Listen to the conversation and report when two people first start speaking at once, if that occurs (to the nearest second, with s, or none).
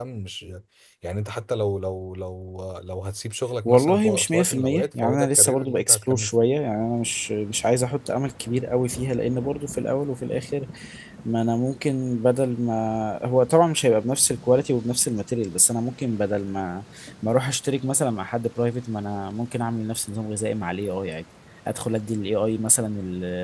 4 s